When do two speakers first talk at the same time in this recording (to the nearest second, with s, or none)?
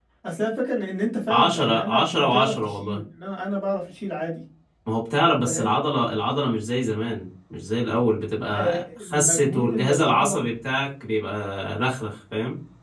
1 s